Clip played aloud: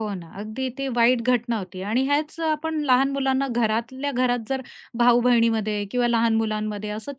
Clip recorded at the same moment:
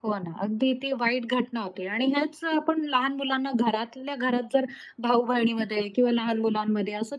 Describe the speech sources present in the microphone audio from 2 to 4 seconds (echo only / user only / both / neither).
echo only